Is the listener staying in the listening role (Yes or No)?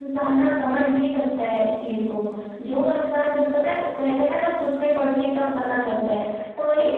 Yes